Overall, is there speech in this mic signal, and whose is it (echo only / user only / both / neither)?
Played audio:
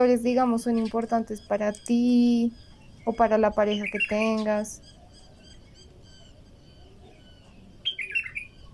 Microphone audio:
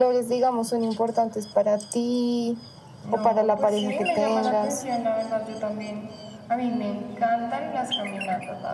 both